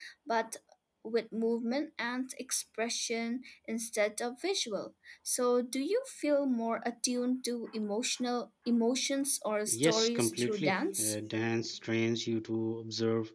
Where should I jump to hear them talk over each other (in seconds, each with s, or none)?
9.7 s